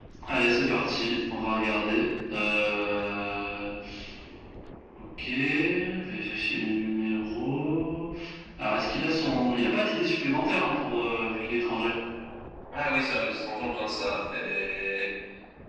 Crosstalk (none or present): none